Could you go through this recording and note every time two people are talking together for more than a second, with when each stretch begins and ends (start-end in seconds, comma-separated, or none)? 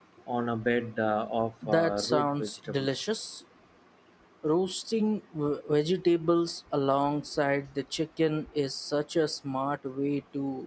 1.7-3.0